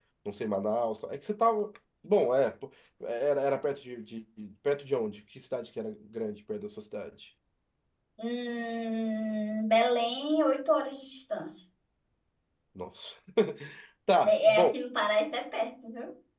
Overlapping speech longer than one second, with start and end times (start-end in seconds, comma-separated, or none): none